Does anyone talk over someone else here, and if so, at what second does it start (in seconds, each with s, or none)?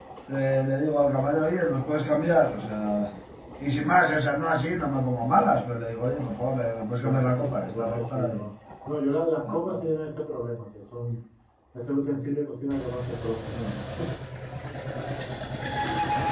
7.0 s